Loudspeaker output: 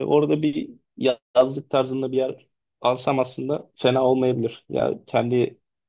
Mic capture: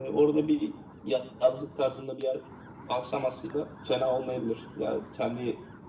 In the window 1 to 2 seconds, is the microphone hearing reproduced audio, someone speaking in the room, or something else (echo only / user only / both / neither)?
echo only